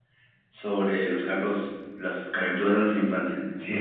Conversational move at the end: taking over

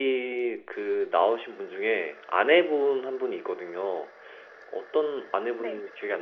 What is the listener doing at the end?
listening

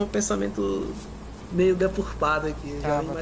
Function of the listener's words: taking over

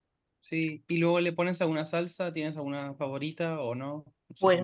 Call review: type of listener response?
taking over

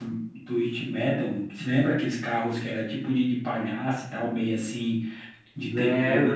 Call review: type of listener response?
taking over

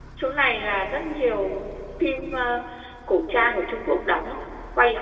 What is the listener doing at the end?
taking over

